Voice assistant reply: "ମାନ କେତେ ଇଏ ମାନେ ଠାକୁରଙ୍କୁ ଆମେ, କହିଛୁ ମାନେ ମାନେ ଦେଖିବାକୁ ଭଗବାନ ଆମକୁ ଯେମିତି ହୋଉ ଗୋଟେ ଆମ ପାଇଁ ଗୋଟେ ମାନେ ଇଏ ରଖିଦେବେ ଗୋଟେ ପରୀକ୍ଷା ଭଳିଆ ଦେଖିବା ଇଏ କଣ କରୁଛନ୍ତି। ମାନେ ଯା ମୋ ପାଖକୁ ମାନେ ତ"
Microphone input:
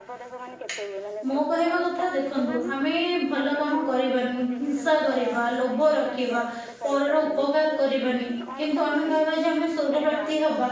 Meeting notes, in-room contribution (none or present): present